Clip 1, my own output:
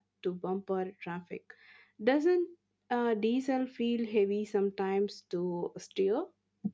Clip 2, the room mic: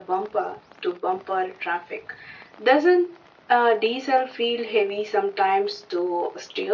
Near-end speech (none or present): none